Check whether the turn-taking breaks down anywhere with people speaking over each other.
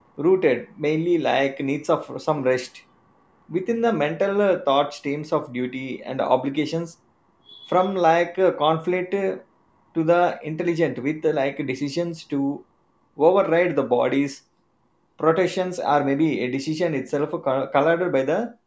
No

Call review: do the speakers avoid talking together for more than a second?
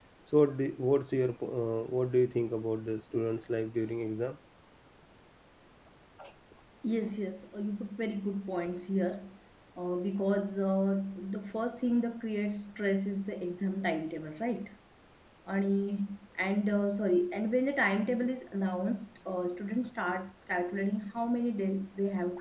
Yes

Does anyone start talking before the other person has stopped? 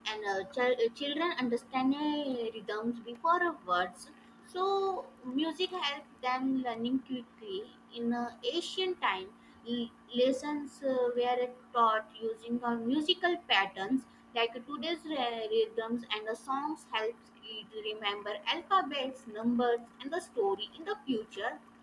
No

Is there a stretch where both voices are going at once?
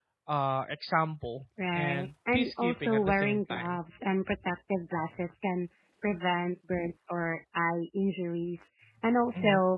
Yes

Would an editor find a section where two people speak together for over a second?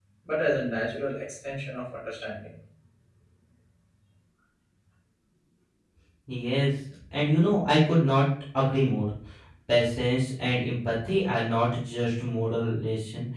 No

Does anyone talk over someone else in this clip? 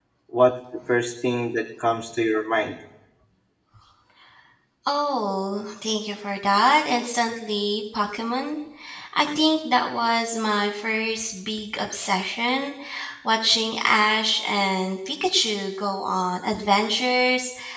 No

